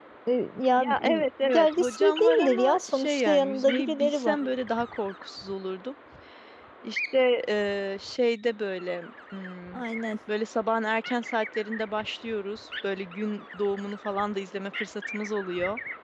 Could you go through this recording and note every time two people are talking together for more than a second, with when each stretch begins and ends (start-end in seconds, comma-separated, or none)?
0.8-4.4